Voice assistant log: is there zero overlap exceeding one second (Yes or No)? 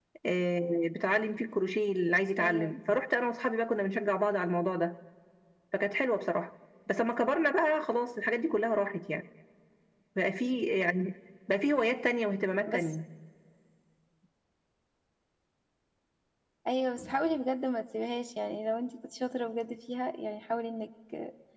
Yes